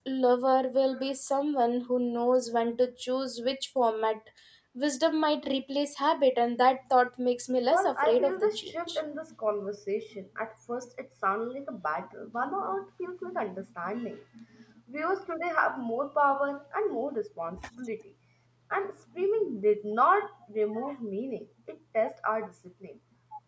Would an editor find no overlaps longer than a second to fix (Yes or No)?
No